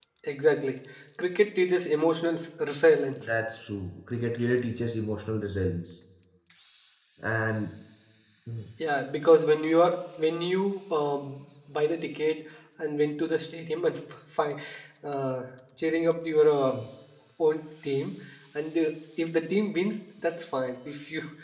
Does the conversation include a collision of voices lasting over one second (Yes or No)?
No